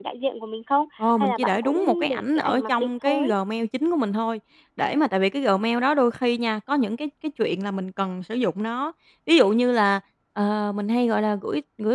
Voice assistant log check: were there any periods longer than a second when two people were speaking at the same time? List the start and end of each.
1.0-3.3

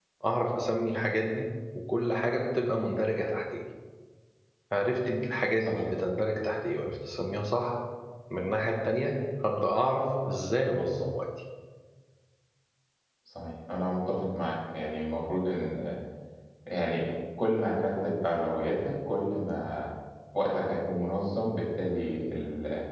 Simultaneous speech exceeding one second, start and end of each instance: none

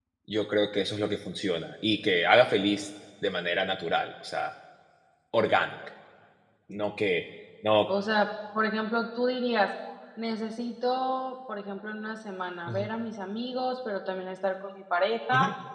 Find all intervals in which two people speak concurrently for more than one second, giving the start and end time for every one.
none

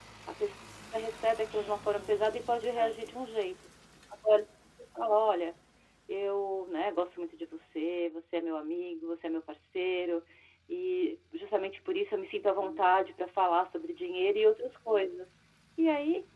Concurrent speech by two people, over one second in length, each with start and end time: 1.5-3.1

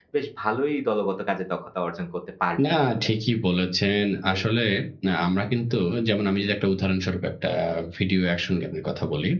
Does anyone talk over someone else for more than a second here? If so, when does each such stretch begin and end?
none

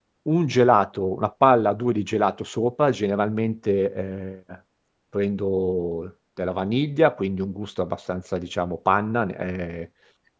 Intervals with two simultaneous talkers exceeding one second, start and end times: none

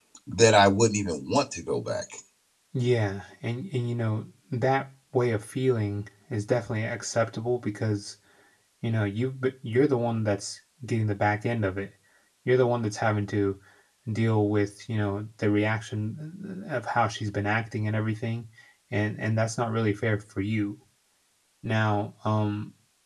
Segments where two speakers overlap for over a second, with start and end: none

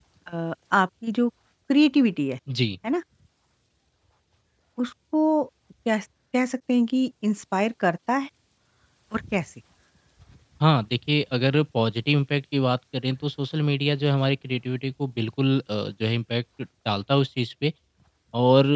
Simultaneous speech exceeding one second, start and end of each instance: none

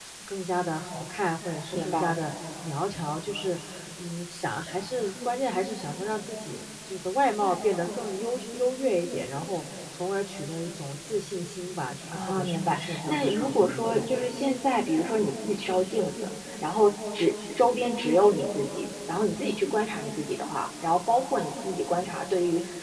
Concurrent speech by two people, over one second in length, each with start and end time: 12.1-14.1

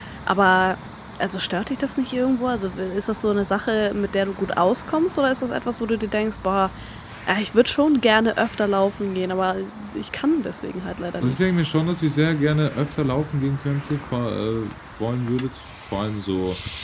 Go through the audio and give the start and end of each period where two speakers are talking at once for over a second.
none

